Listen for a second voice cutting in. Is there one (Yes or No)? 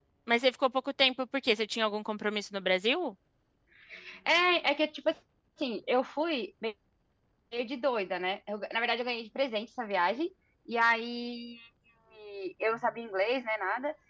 No